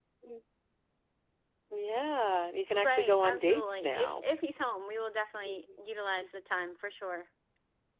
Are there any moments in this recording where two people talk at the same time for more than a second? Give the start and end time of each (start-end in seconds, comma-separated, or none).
2.7-4.2